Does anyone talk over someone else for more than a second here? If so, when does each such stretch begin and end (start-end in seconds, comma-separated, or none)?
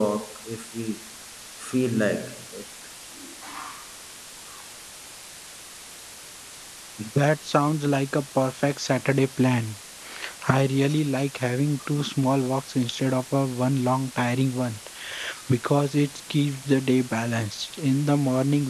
none